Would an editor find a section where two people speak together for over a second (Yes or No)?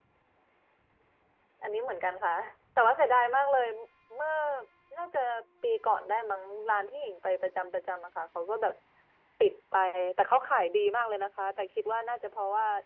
No